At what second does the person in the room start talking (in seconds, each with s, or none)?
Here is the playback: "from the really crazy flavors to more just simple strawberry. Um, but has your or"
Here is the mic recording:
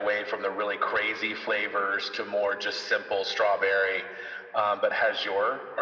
none